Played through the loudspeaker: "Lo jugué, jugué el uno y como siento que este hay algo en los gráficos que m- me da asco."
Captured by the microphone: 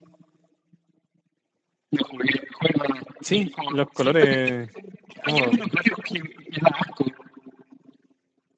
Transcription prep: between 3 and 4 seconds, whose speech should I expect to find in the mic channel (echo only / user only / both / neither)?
both